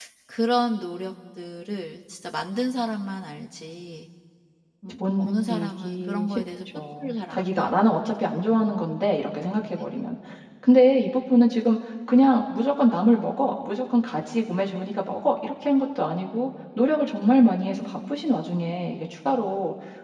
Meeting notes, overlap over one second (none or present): present